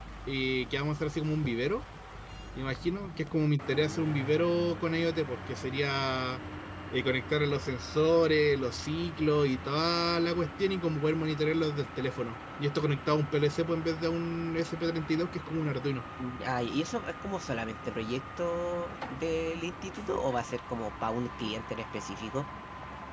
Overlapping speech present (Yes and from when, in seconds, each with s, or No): No